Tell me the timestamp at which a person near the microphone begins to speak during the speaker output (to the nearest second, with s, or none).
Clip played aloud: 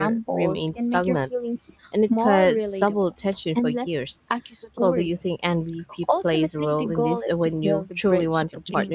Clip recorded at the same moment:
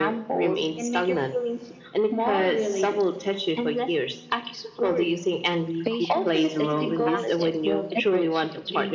6 s